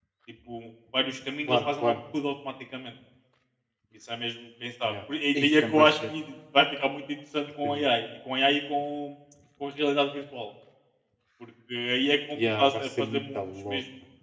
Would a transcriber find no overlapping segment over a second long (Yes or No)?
No